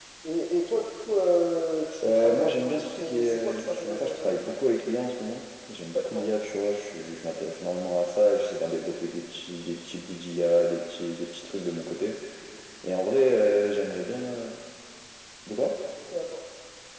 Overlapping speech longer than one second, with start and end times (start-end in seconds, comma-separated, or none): 2.0-4.4